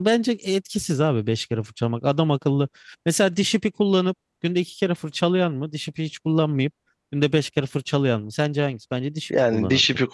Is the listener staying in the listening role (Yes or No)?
No